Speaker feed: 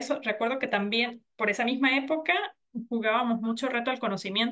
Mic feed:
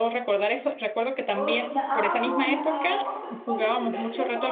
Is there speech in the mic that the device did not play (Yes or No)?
Yes